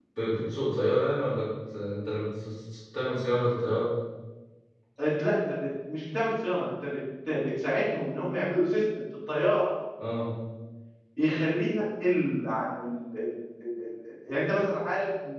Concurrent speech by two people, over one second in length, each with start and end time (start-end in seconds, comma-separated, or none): none